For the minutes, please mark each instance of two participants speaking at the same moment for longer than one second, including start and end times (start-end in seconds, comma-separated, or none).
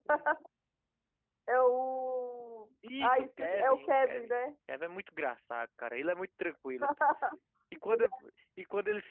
3.0-4.3